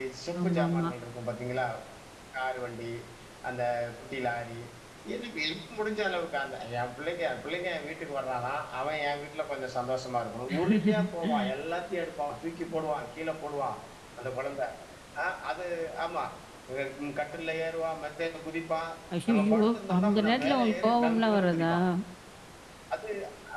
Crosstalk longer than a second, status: present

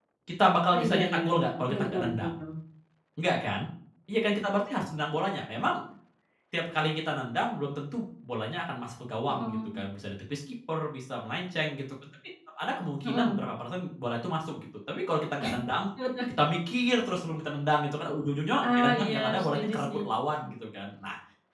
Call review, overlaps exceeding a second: present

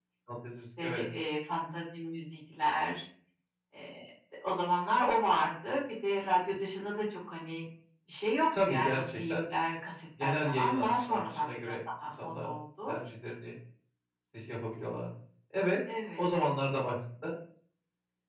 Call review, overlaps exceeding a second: present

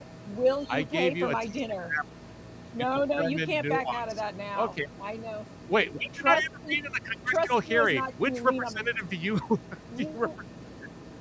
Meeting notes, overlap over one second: present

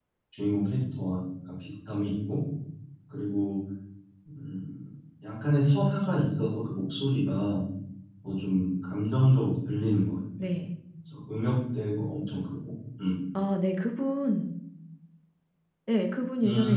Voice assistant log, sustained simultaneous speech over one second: none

